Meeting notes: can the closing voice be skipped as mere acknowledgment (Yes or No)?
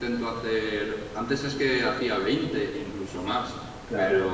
Yes